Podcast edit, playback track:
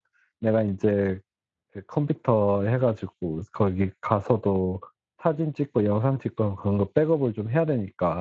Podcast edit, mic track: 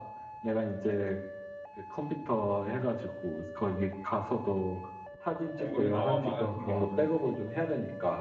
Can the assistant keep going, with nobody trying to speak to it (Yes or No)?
No